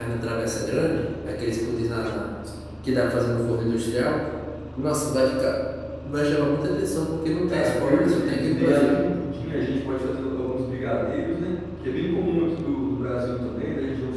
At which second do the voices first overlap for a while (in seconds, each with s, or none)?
7.5 s